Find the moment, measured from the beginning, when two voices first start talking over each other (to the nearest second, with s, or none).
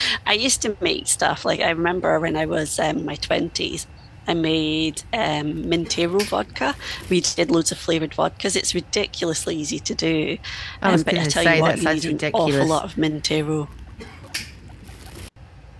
11 s